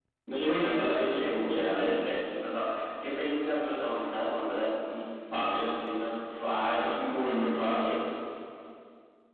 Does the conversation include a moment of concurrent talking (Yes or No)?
Yes